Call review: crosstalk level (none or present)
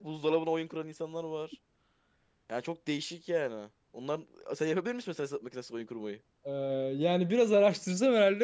none